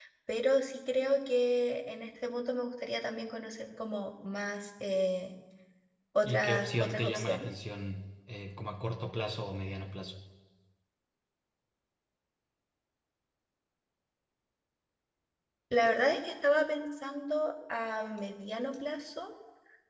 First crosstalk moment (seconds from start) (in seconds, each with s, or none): 6.2 s